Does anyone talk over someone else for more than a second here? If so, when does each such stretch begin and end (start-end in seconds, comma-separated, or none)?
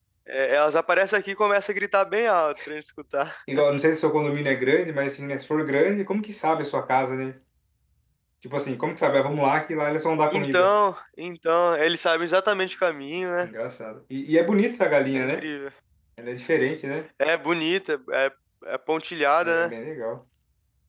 none